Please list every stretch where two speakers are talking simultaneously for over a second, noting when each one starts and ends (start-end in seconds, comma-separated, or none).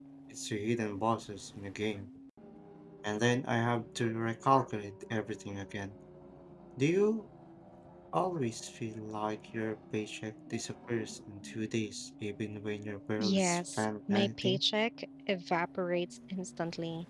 13.2-14.6